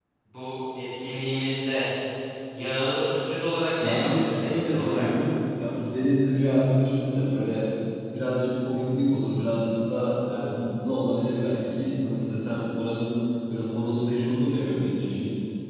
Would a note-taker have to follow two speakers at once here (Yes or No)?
Yes